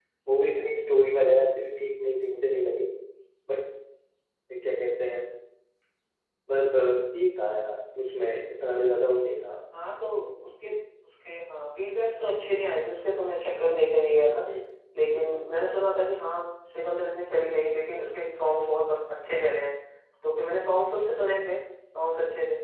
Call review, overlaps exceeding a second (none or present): none